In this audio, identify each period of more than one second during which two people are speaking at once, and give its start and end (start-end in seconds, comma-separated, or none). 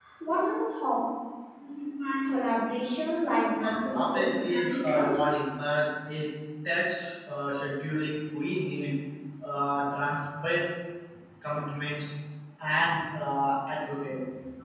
3.6-5.2